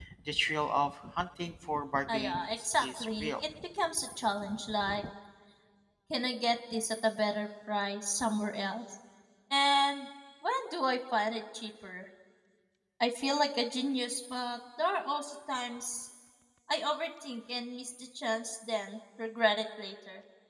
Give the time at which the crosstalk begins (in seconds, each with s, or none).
2.1 s